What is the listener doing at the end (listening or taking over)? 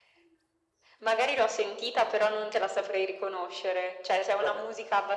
listening